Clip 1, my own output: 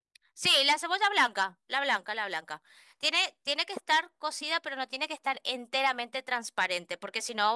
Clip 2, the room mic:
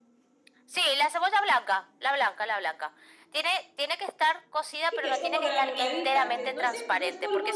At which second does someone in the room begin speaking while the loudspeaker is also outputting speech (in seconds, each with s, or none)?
4.9 s